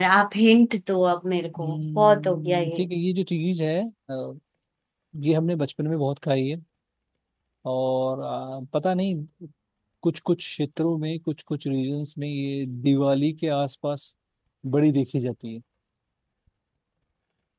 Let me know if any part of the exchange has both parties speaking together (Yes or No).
Yes